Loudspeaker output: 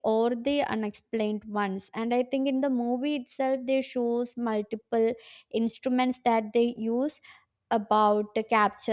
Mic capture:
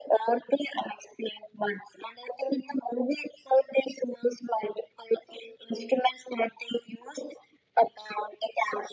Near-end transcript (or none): none